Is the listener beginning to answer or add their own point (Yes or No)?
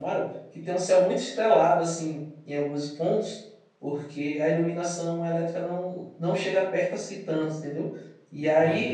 No